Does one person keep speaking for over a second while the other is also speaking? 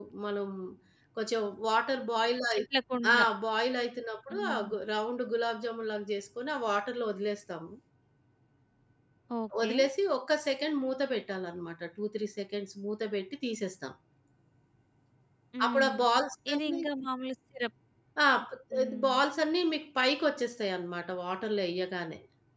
No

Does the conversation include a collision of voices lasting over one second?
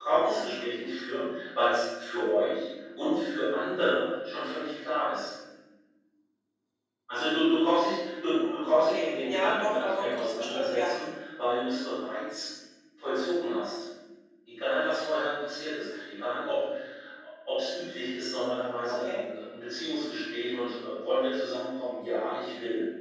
Yes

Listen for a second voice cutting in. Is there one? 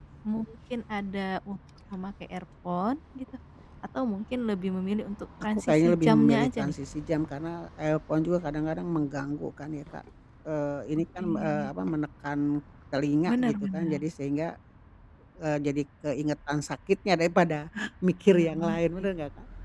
Yes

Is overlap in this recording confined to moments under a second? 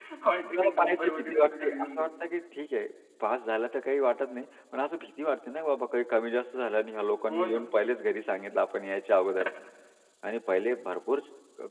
No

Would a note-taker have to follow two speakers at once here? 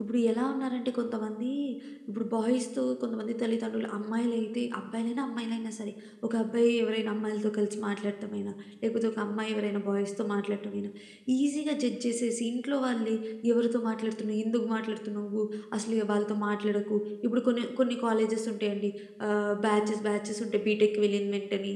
No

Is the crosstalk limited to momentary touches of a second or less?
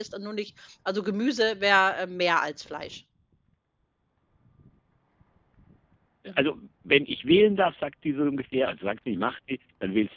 Yes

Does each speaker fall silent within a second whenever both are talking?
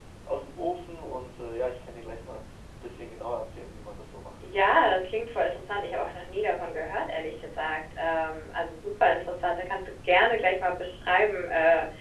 Yes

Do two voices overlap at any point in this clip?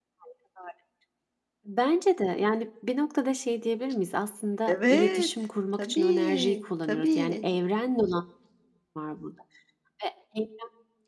Yes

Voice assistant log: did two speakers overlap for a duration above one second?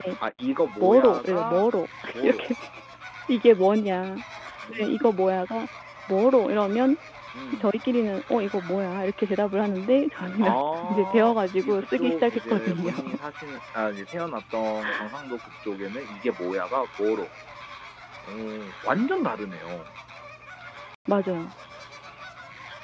Yes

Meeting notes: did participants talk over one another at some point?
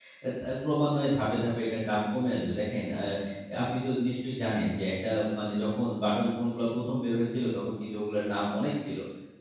No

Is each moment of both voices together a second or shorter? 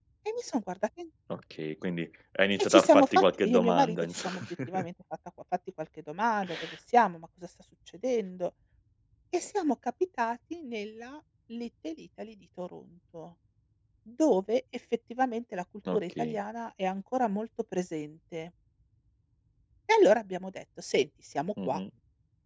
No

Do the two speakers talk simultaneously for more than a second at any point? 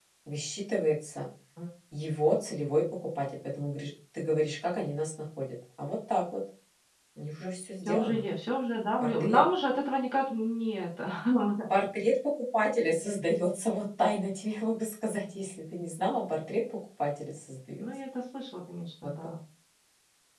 No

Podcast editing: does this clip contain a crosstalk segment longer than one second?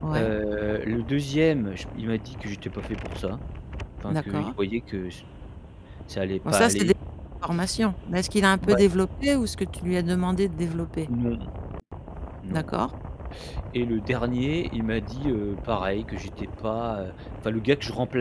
No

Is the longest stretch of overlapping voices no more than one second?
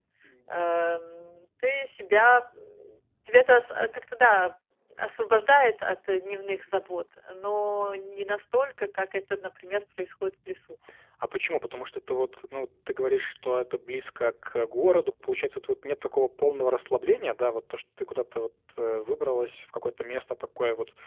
Yes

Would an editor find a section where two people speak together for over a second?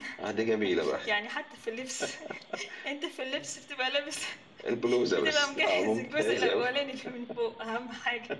Yes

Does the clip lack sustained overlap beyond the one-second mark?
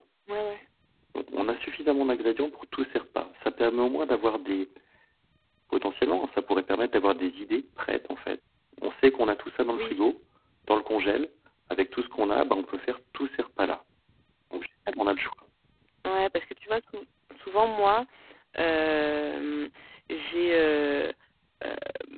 Yes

